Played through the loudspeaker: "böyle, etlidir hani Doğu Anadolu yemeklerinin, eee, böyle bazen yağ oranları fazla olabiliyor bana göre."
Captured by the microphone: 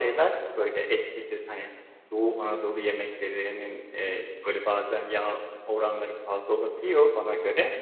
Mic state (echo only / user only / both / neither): echo only